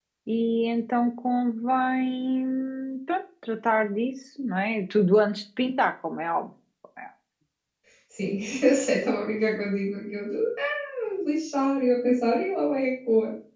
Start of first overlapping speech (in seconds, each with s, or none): none